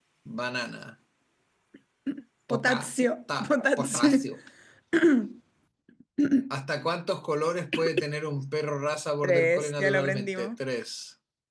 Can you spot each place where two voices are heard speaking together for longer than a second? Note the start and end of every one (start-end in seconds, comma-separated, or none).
9.2-10.5